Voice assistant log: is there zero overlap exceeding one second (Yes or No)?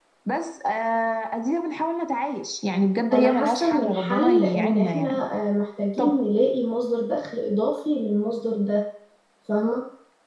No